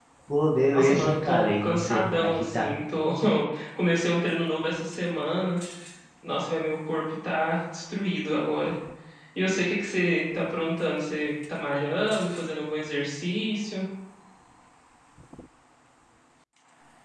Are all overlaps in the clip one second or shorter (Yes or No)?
No